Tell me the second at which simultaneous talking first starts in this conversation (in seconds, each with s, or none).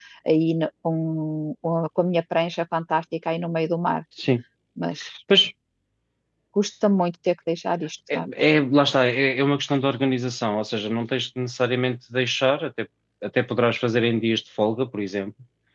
none